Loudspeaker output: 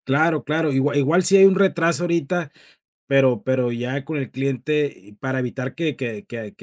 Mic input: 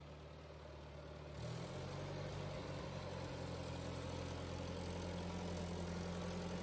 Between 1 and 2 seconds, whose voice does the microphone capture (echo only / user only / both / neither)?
neither